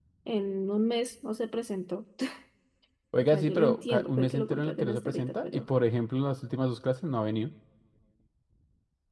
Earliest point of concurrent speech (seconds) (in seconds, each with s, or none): 3.2 s